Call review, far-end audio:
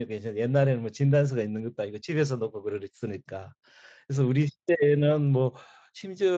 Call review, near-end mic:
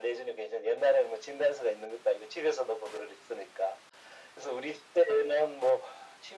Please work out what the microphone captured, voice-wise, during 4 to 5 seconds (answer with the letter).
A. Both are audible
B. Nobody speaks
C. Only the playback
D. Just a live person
C